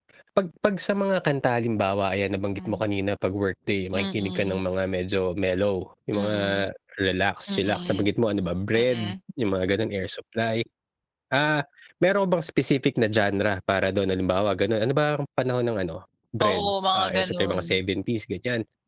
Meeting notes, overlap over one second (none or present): present